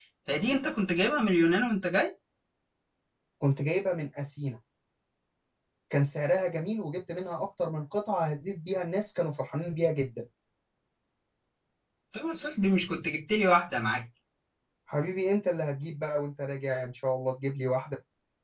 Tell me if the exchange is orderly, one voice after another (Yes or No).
Yes